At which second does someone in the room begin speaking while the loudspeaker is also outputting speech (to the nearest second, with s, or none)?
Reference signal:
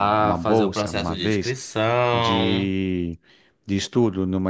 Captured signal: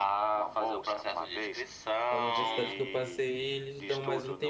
2 s